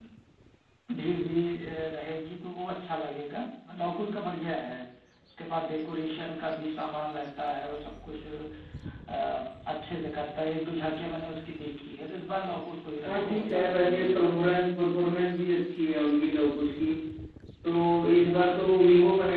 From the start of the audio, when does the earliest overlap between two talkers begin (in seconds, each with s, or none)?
13.0 s